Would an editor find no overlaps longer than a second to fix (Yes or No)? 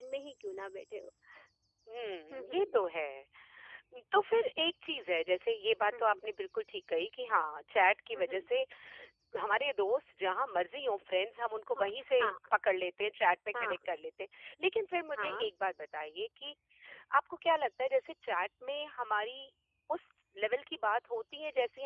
Yes